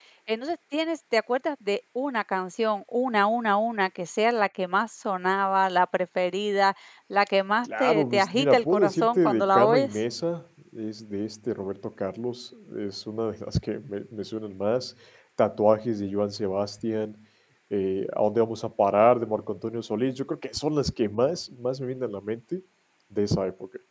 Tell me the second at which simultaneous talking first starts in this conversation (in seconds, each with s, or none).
7.6 s